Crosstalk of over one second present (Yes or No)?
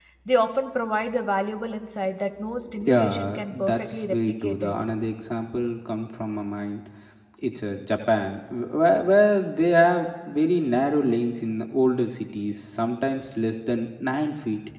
Yes